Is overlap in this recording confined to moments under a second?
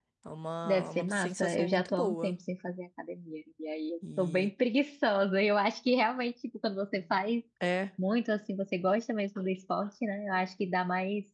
No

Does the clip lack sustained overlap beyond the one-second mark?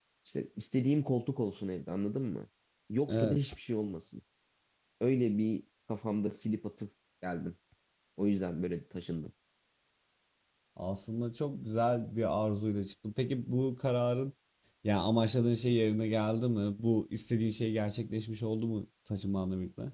Yes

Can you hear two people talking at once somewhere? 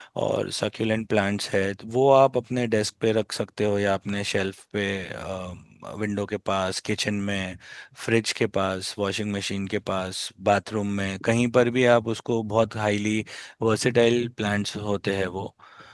No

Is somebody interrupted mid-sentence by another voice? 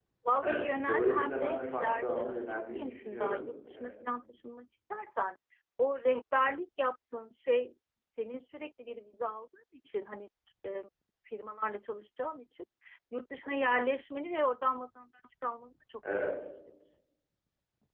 Yes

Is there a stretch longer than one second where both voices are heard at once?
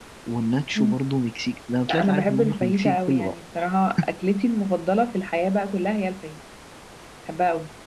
Yes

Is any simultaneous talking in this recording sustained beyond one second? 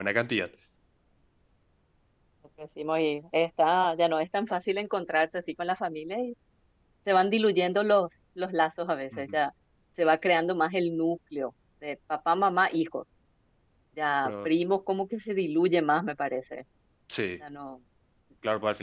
No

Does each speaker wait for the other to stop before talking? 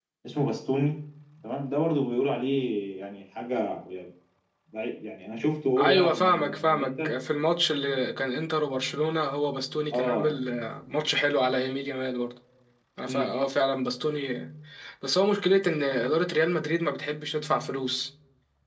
No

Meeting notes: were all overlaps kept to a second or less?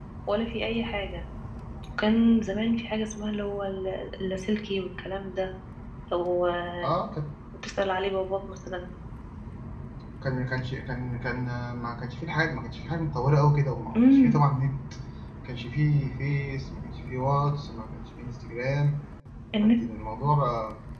Yes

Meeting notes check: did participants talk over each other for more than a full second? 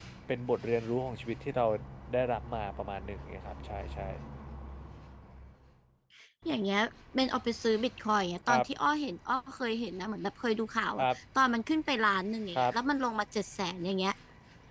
No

